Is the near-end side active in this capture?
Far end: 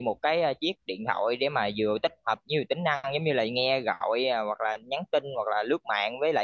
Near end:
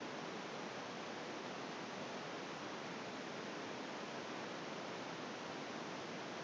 No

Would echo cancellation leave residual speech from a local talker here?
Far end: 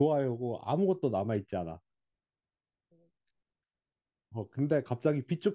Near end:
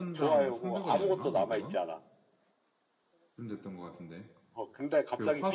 Yes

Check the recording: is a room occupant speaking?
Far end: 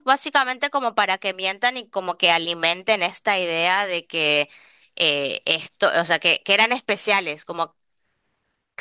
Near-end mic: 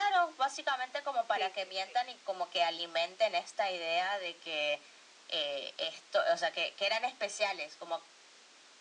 Yes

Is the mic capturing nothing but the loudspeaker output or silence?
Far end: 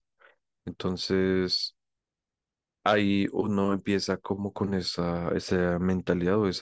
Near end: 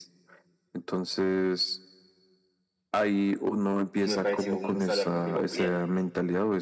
No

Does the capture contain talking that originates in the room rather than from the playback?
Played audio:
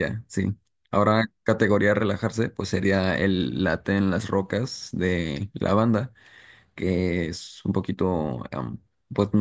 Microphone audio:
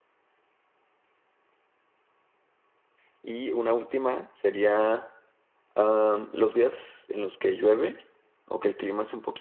Yes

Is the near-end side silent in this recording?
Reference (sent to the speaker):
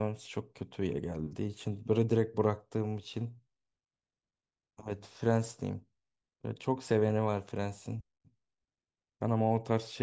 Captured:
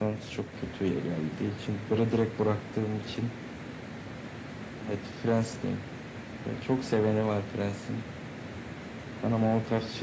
Yes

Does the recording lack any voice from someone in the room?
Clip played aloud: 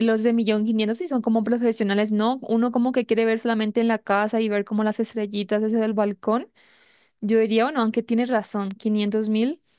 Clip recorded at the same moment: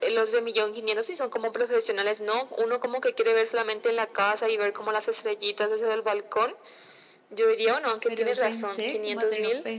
No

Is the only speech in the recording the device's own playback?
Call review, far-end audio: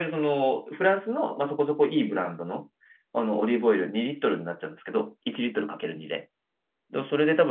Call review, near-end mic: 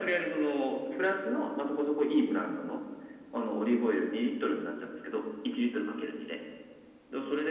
Yes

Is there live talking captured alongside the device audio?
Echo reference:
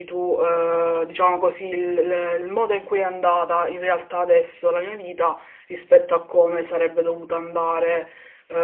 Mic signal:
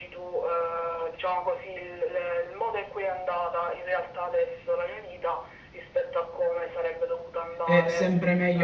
Yes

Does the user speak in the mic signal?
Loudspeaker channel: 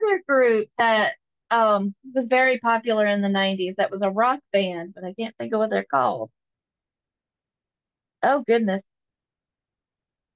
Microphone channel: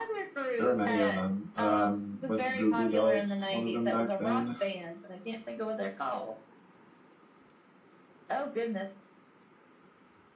Yes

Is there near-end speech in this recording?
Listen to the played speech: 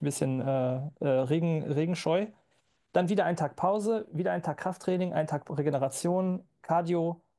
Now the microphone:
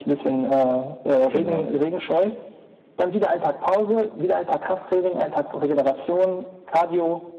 Yes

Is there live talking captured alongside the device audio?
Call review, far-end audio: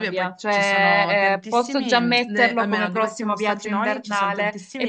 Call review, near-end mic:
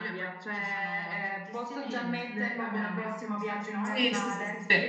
Yes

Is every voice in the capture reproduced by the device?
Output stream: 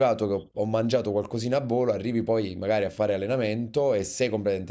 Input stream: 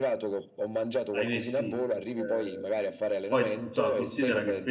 No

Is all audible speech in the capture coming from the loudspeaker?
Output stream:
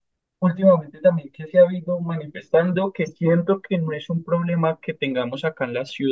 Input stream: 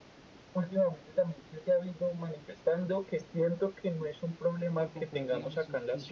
No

